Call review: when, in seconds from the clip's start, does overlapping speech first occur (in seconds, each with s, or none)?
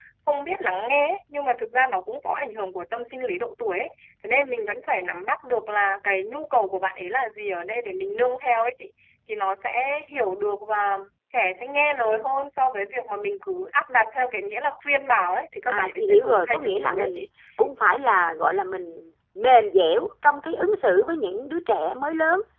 15.7 s